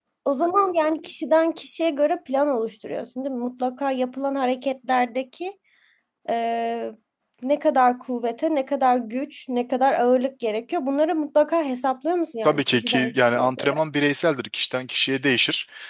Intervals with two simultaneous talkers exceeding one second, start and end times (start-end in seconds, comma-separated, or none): 12.4-13.8